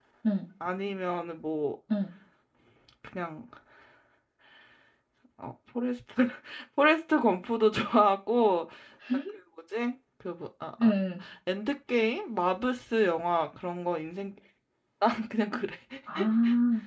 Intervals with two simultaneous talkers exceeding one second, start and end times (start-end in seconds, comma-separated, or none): none